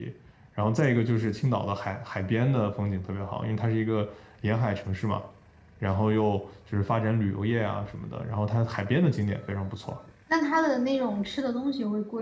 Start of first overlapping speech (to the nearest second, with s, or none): none